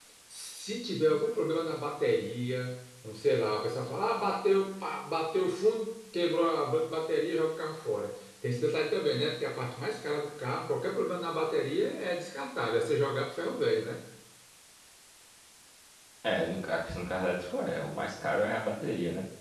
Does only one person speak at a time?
Yes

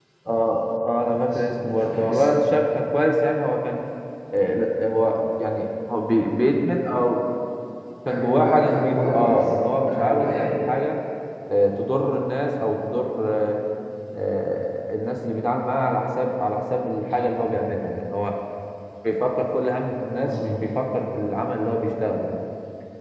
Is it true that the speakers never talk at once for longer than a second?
No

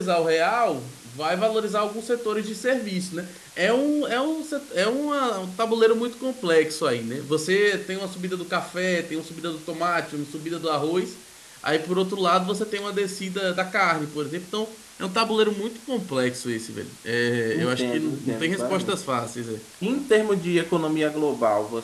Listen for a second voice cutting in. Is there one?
Yes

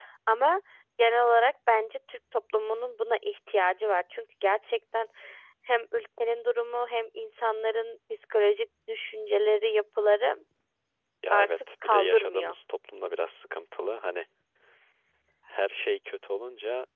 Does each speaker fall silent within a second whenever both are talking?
No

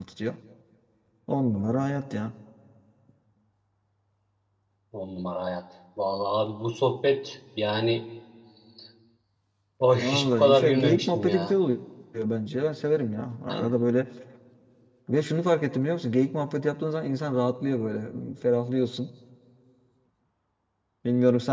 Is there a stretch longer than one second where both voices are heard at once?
Yes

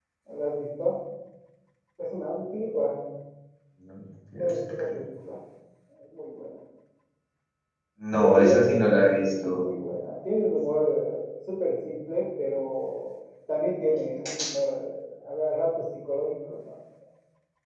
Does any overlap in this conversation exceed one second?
Yes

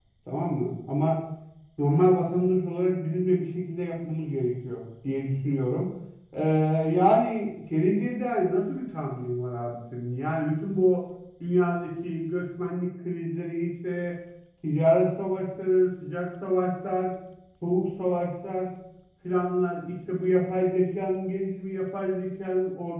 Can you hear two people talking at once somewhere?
No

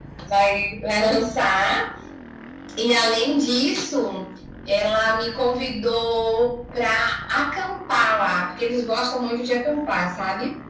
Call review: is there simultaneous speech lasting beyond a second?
No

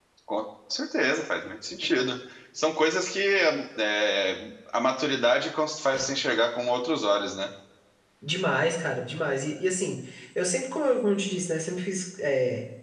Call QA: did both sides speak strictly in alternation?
Yes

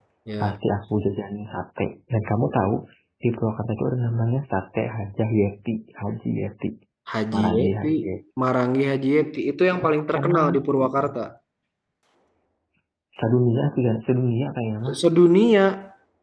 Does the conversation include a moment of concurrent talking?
Yes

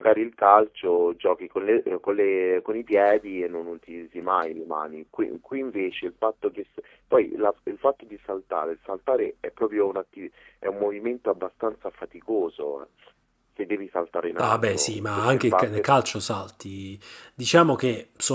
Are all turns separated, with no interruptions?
No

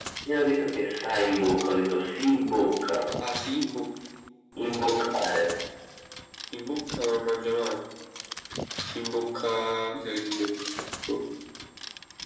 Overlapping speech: No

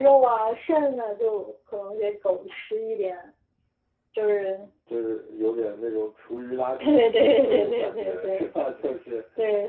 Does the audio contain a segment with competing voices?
Yes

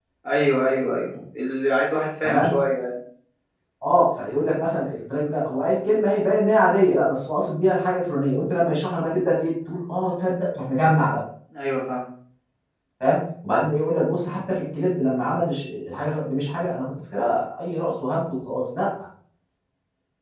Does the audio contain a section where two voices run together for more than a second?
No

